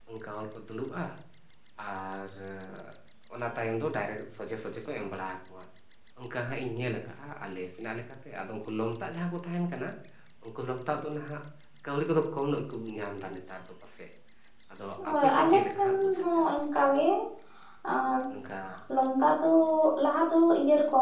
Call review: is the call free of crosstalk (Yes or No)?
No